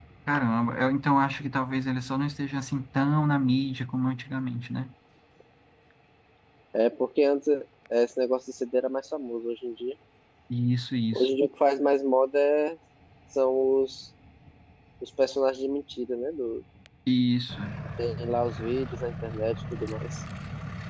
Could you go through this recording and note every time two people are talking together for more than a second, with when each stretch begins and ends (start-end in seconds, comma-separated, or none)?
none